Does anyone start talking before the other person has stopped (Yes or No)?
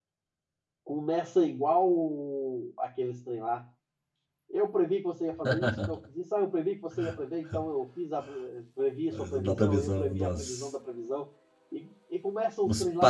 Yes